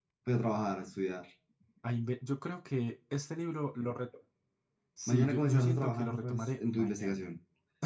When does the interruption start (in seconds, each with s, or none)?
5.1 s